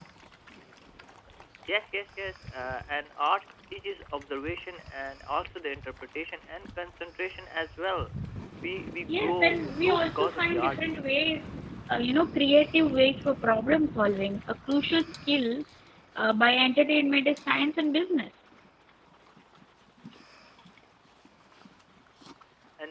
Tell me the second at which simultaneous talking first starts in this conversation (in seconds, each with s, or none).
9.1 s